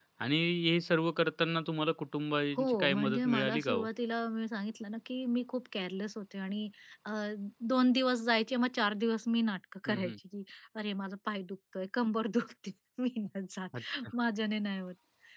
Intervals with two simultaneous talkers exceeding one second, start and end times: 2.6-3.9

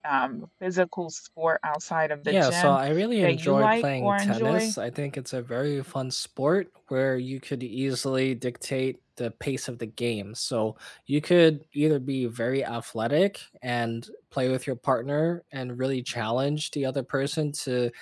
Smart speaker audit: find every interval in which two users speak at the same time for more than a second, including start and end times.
3.2-4.7

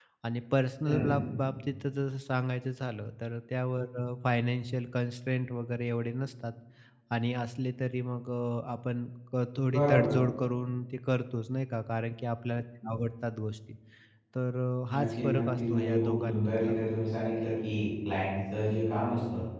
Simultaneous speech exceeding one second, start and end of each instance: 14.9-16.8

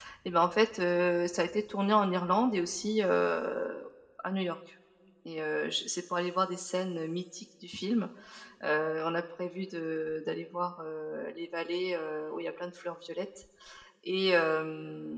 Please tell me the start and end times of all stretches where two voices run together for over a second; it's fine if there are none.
none

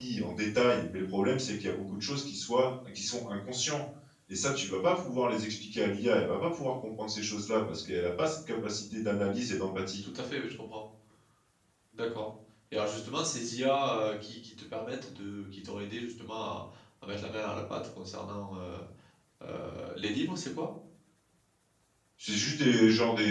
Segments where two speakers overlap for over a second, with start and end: none

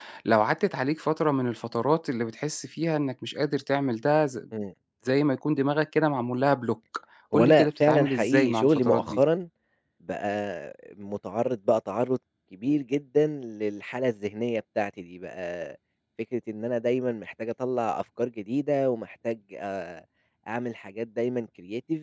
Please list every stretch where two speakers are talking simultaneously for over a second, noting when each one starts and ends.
7.3-9.2

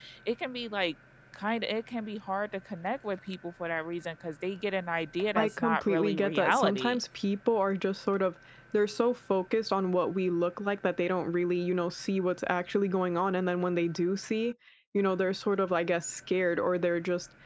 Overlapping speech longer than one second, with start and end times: 5.4-7.0

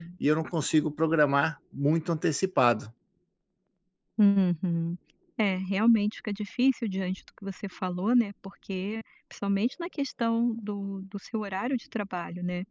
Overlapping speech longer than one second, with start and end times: none

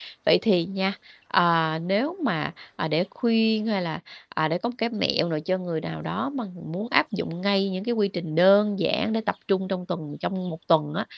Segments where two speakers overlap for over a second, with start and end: none

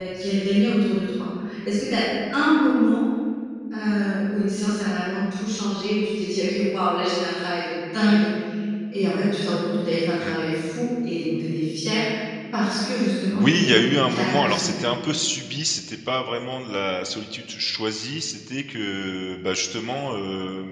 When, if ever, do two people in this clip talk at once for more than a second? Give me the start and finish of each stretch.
13.3-14.8

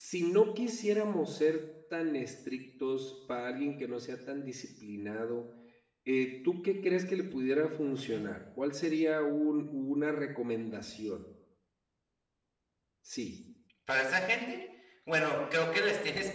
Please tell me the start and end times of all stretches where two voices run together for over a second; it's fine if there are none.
none

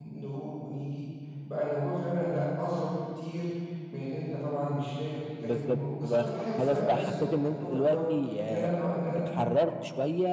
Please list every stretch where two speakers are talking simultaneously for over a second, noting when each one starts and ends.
5.4-8.0

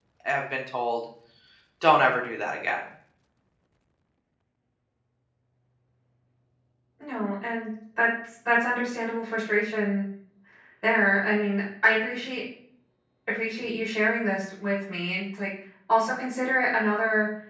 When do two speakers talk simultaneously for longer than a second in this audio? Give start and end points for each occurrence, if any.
none

